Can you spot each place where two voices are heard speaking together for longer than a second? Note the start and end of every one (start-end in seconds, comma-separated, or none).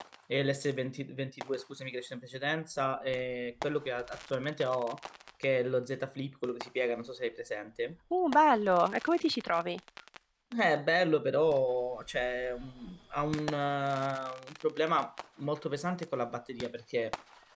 none